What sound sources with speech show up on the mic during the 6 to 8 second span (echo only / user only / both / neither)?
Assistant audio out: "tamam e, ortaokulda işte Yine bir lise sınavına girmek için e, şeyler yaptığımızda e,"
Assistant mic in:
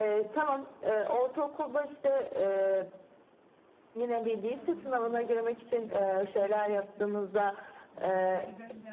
both